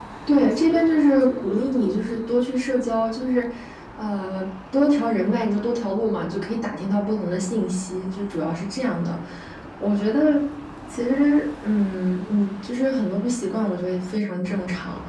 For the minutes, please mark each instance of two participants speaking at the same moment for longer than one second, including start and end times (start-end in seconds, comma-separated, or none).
0.5-2.3